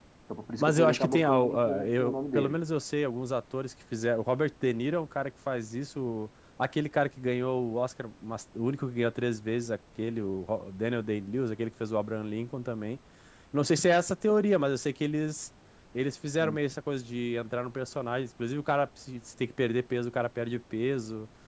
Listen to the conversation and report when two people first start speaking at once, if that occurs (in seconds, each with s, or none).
0.6 s